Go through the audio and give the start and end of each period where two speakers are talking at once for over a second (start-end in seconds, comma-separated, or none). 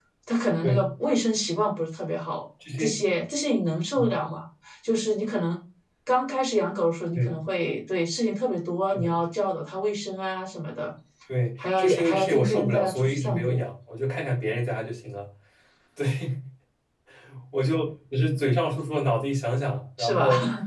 11.8-13.6